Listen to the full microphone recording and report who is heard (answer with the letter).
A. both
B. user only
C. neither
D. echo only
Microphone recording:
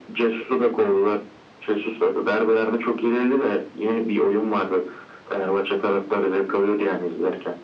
D